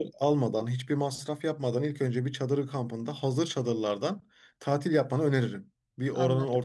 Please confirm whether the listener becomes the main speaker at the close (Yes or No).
No